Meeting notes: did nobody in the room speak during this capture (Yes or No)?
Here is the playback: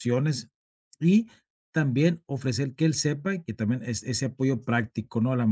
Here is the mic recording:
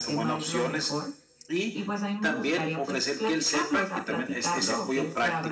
No